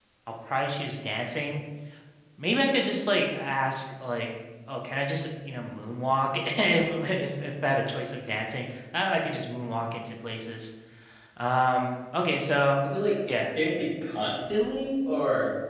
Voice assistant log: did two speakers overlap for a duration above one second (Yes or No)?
No